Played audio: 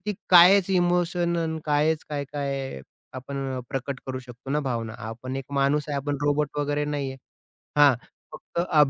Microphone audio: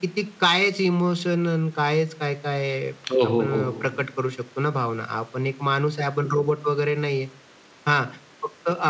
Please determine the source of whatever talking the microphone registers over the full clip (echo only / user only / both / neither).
both